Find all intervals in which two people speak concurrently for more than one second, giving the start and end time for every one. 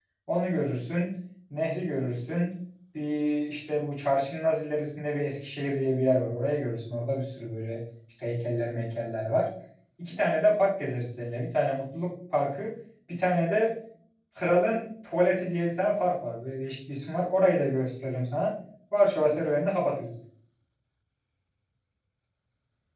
none

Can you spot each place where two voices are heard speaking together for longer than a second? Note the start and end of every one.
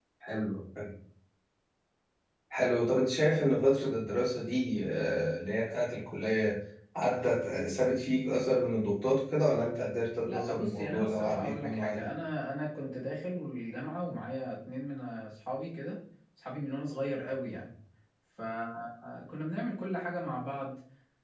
10.2-12.1

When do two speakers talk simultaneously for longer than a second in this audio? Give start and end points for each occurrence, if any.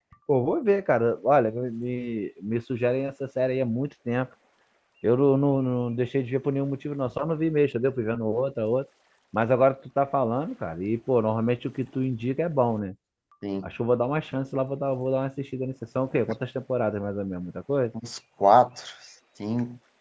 none

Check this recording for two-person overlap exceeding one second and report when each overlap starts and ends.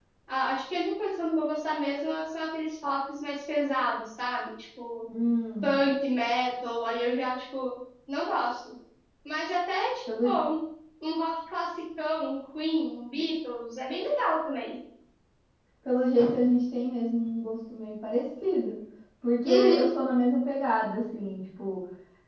none

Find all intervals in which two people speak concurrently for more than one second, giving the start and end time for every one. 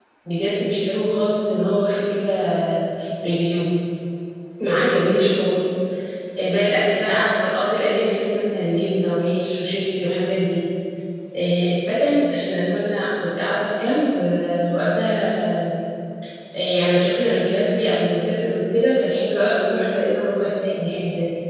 none

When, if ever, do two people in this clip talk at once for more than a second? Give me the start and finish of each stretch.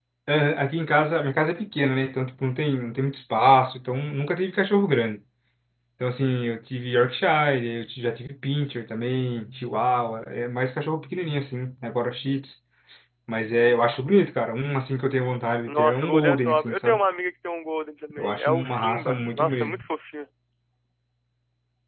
15.7-17.0, 18.2-19.8

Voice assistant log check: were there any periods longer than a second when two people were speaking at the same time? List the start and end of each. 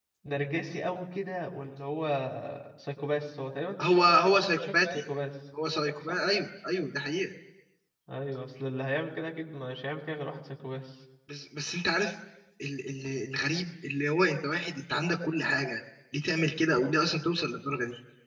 3.8-5.0

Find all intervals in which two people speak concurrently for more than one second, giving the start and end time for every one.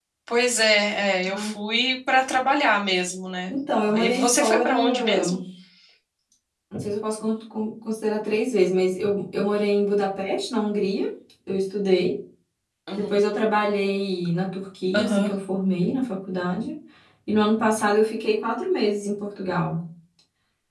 4.0-5.4

